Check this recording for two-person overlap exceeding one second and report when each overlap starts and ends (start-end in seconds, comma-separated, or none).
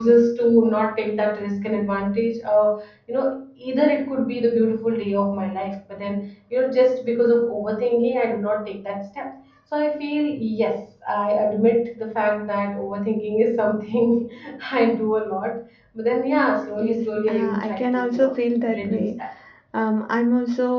16.8-18.3